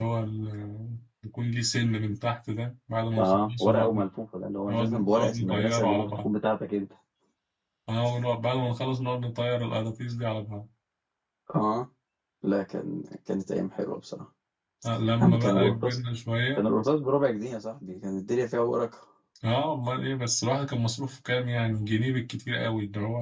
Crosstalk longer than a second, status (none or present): present